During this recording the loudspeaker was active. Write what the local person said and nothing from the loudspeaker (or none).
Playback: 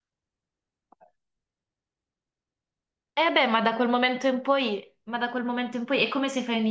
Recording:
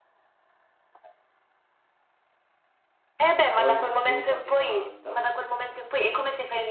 o in un gioco anni 90?